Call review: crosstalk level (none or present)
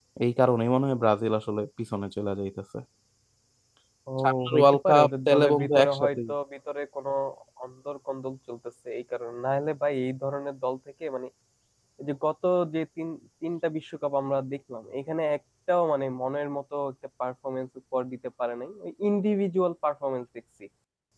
present